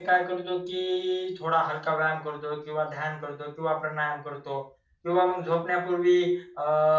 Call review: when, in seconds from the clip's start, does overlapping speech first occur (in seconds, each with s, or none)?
none